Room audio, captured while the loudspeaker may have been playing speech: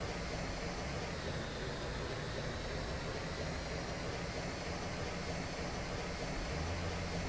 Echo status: none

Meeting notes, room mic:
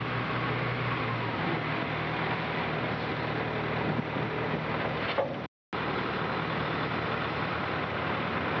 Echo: none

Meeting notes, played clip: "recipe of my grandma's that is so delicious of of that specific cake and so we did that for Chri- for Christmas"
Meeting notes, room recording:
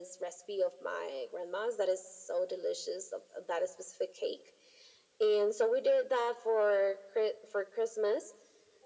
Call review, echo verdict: present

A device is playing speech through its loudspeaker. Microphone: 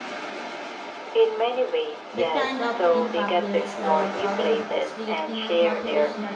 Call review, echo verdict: present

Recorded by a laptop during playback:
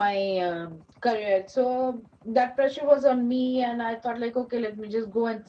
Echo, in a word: none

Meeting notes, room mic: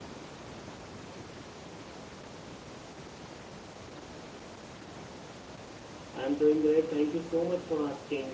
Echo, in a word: none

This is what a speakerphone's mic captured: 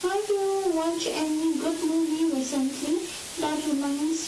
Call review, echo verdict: present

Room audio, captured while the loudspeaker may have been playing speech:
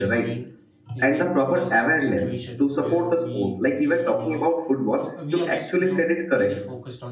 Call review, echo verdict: present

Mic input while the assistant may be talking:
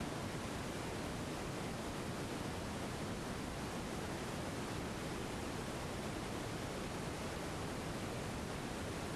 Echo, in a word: none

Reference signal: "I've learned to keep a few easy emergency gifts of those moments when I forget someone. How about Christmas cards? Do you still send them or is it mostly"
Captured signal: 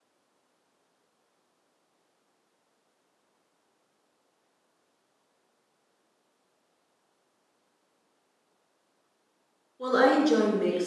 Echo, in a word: none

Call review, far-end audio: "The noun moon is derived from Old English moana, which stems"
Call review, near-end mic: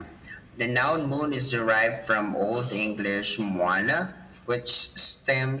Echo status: present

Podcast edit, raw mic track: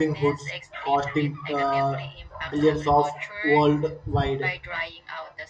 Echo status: present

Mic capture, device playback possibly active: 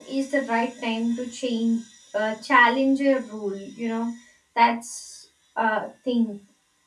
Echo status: none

